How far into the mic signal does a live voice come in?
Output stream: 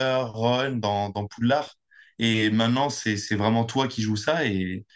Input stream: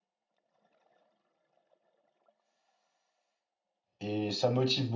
4.0 s

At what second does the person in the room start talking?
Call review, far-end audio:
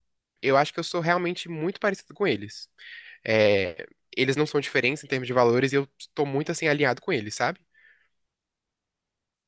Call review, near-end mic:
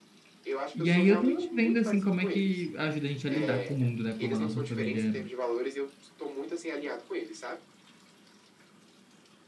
0.7 s

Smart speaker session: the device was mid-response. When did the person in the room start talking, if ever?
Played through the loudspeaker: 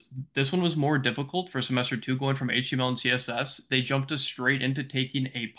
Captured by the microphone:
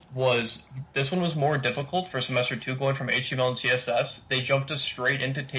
none

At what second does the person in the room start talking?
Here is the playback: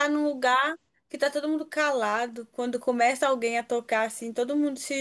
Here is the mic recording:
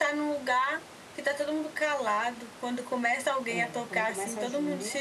3.5 s

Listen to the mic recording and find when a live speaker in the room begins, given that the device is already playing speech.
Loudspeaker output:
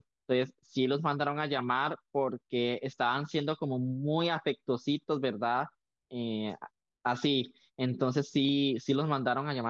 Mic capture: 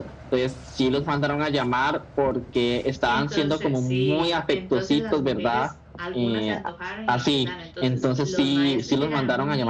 3.0 s

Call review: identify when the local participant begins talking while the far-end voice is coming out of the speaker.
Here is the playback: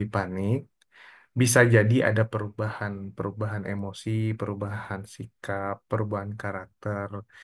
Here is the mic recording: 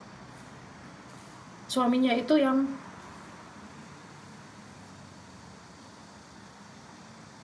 1.7 s

